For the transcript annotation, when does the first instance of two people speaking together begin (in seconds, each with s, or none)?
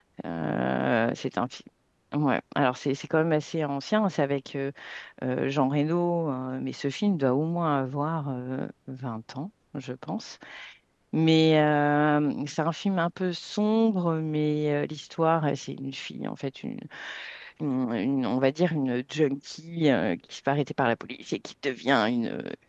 none